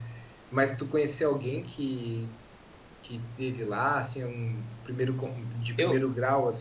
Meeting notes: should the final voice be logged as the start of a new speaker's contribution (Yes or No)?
No